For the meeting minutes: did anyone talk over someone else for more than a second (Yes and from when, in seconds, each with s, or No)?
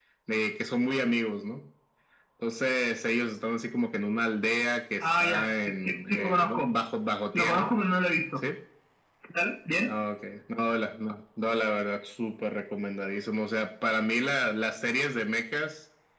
Yes, from 5.0 s